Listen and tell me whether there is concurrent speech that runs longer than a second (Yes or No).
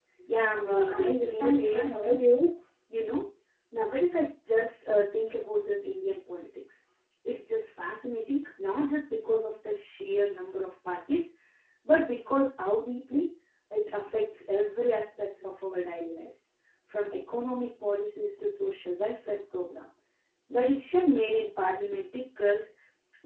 Yes